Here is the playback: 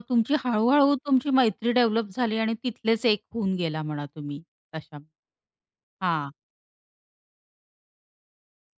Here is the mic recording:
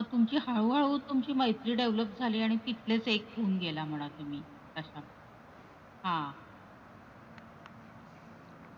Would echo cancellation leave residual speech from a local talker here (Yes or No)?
No